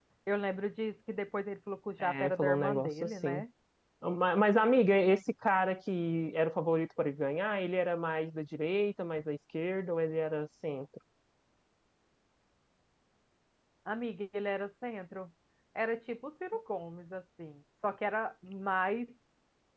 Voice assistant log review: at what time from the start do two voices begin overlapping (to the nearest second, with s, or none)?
2 s